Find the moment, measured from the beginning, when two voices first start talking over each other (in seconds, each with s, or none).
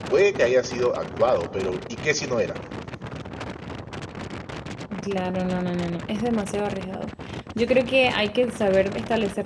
none